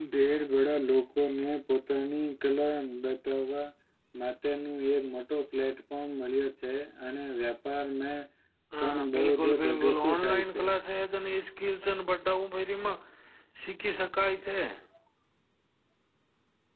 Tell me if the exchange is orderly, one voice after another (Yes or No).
No